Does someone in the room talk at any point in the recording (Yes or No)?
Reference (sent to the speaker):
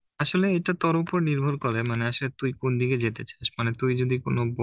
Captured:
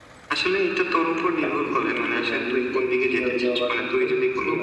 Yes